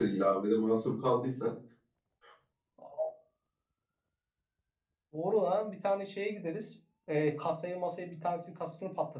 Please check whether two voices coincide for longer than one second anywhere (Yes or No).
No